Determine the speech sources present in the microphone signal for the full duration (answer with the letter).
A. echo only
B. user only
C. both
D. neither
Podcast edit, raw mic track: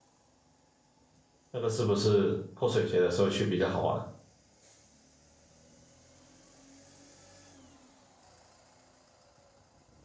B